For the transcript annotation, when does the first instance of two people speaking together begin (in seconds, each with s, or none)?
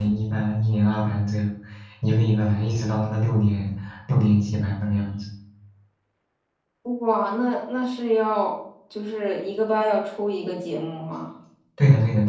none